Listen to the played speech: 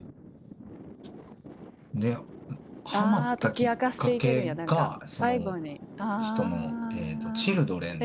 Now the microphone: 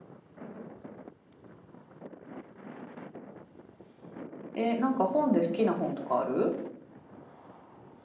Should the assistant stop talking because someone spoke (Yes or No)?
Yes